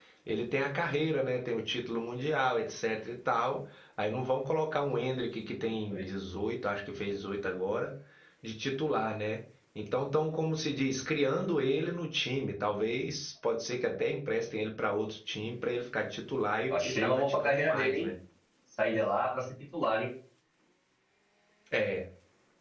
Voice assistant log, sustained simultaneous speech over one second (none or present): present